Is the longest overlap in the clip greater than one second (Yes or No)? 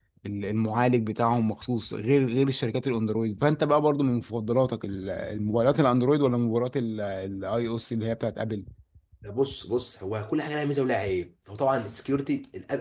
No